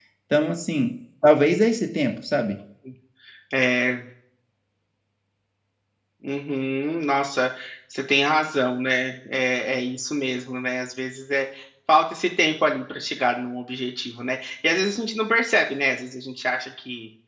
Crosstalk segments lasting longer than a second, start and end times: none

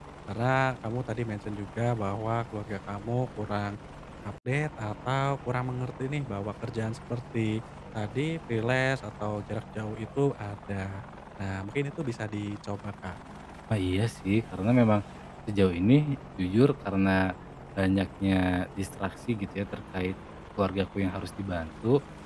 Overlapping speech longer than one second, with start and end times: none

